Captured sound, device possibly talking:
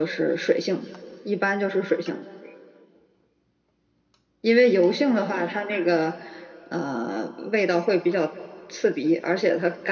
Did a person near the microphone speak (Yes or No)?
No